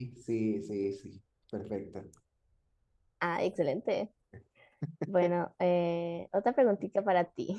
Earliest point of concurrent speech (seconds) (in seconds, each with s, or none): none